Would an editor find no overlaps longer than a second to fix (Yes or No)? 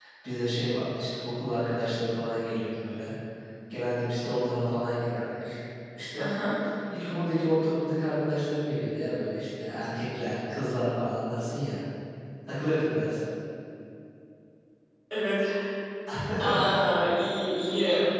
Yes